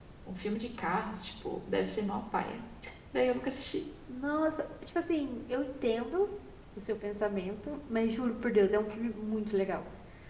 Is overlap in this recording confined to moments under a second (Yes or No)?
Yes